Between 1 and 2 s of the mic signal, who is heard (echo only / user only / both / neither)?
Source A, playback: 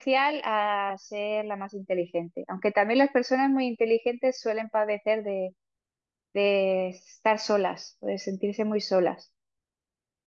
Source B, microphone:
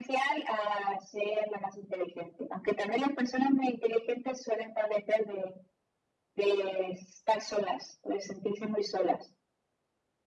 echo only